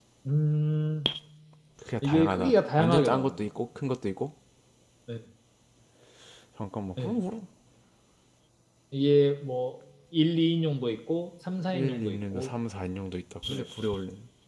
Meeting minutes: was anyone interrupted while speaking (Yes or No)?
Yes